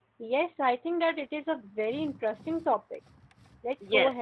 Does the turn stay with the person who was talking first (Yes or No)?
No